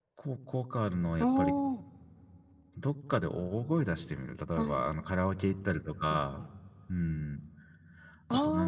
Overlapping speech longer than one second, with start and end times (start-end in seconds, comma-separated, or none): none